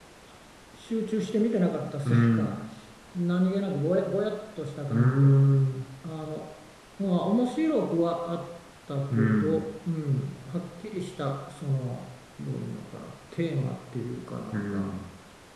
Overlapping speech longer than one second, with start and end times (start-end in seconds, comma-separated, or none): none